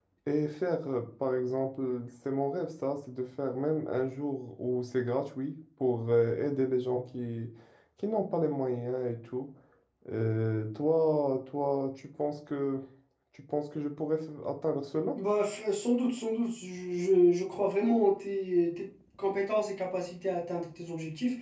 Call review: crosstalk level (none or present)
none